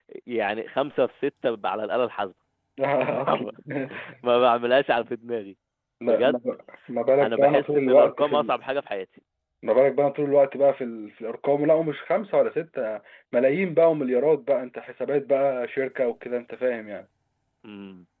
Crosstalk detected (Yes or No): Yes